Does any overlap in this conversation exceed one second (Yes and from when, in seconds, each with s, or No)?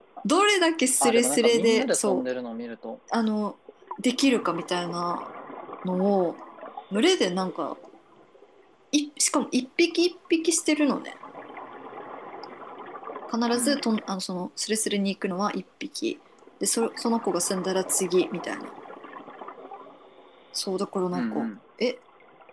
Yes, from 1.0 s